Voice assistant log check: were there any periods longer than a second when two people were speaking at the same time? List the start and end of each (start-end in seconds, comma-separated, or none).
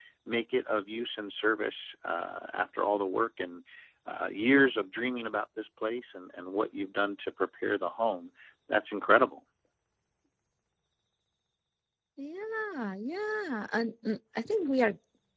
none